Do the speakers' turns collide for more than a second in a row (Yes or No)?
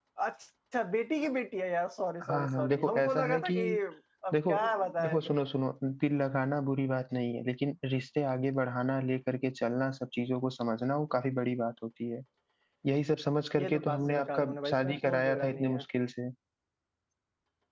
Yes